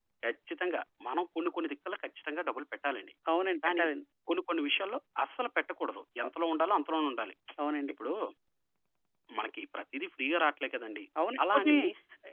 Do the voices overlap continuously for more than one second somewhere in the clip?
No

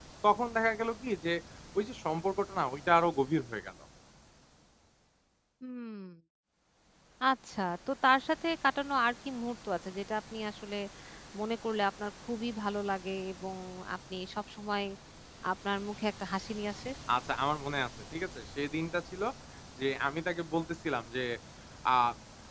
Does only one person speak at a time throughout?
Yes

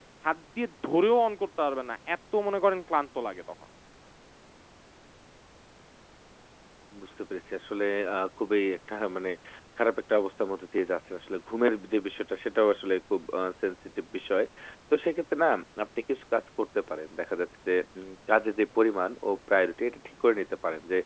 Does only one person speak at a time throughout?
Yes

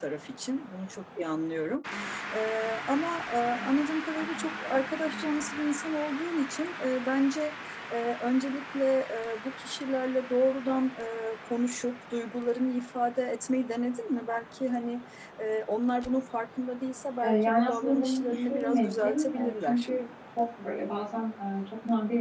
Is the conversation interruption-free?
No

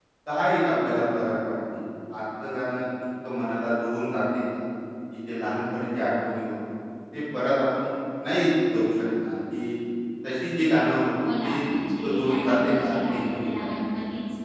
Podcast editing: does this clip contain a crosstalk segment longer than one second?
Yes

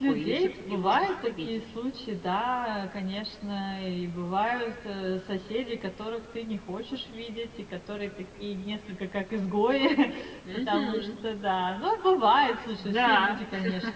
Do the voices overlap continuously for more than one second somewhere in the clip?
Yes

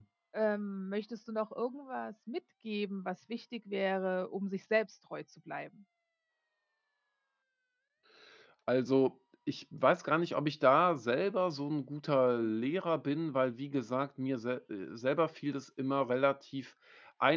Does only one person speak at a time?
Yes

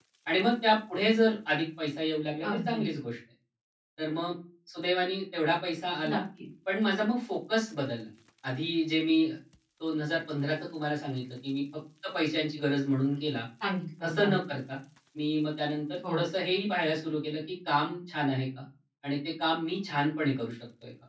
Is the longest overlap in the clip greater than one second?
No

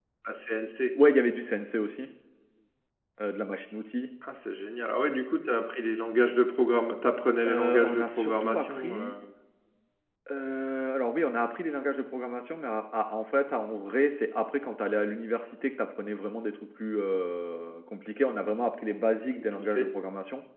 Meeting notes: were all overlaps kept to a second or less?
No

